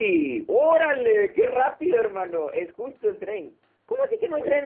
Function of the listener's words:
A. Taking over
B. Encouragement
B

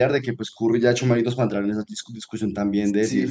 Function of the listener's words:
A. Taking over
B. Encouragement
A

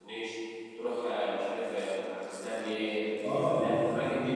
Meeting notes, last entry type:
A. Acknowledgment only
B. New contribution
B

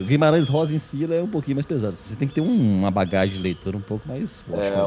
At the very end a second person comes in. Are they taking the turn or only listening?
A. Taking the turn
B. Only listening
A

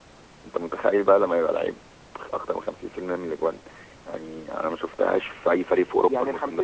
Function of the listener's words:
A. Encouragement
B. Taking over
B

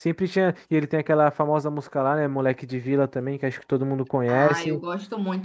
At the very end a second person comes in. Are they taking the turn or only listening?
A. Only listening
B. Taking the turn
B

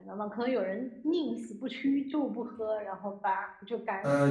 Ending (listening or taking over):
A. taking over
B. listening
A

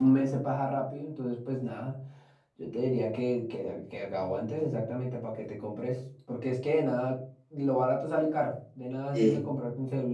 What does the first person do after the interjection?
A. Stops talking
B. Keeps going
B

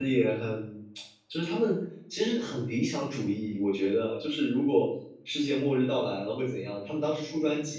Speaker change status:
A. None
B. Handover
A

